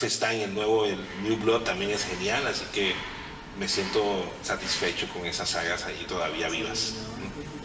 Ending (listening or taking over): taking over